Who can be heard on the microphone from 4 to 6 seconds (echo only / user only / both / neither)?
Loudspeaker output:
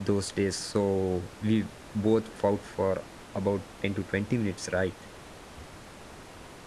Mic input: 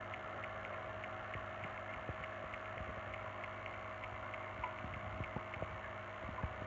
neither